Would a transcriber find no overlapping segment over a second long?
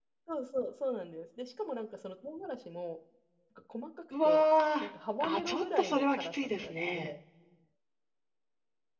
No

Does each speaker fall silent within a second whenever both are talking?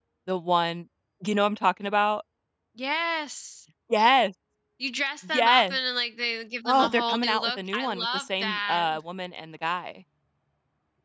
No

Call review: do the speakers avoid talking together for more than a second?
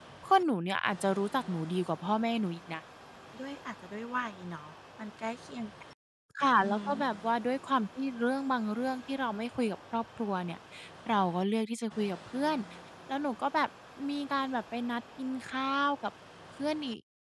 Yes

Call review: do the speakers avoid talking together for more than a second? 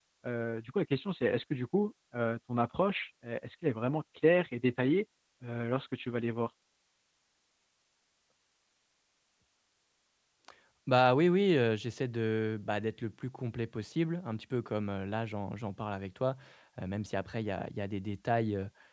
Yes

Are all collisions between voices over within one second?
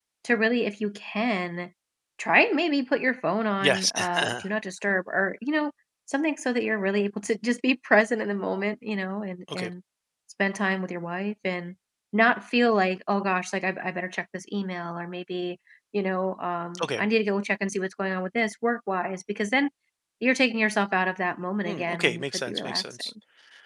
No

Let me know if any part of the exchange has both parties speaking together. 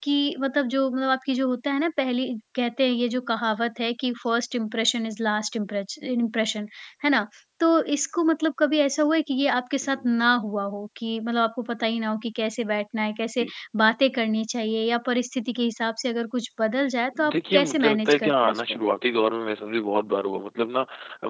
Yes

